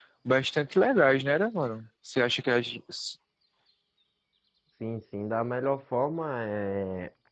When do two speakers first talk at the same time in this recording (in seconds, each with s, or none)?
none